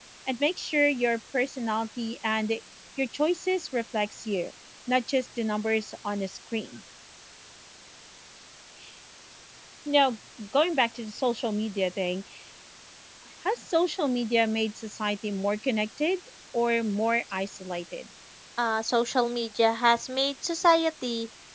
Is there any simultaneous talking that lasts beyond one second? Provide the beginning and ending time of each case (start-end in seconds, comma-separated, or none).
none